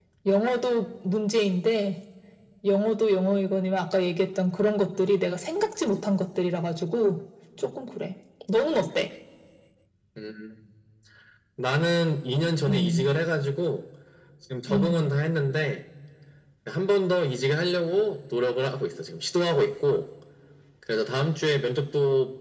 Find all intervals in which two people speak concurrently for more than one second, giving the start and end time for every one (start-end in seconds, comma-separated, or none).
none